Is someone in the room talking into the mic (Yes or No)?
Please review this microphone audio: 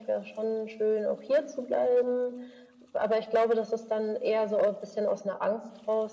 No